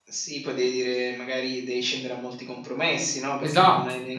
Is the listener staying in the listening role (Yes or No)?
Yes